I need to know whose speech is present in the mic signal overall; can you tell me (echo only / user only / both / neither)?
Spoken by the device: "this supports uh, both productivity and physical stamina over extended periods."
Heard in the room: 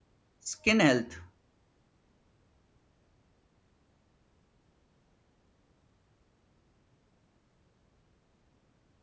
user only